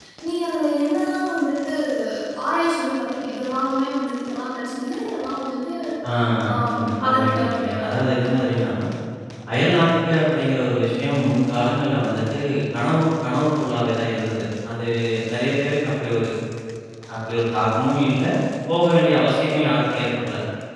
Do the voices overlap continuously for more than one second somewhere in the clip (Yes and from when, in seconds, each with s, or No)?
Yes, from 6.7 s